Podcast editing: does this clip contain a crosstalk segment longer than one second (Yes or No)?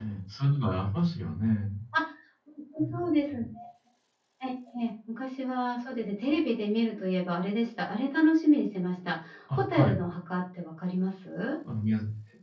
No